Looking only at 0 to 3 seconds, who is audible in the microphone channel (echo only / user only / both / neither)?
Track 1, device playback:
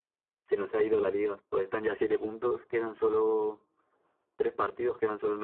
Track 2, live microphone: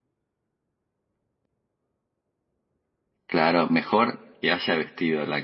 neither